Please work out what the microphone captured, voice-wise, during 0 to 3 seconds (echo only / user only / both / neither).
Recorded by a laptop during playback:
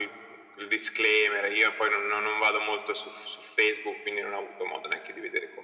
echo only